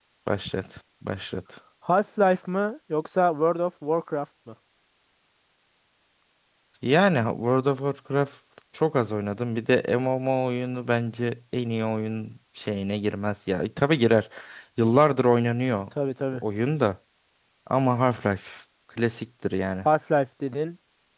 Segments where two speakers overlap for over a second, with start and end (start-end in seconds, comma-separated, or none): none